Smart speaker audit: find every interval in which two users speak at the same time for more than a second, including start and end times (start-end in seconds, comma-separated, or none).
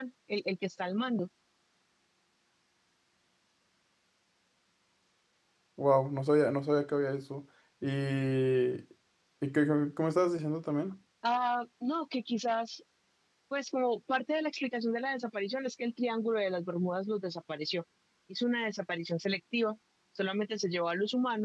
none